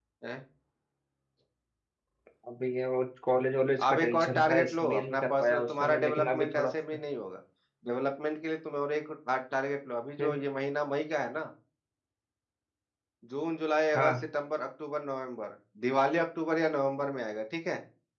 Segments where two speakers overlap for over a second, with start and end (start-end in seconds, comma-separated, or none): 3.8-6.7